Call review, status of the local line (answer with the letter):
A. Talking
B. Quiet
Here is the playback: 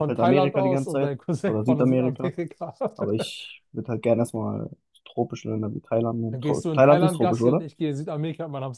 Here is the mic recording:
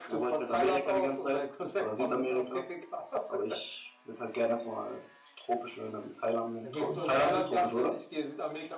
A